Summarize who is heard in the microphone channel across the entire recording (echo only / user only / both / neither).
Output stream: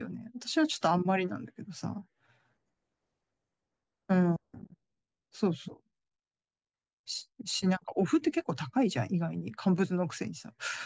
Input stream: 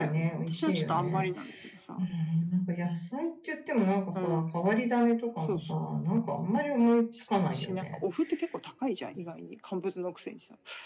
both